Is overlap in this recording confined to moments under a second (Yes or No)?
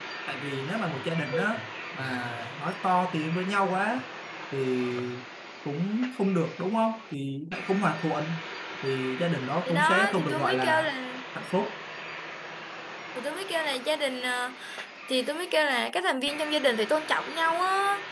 No